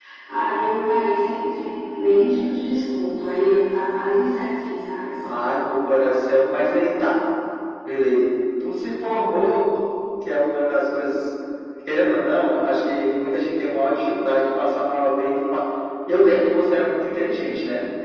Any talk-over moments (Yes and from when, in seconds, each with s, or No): No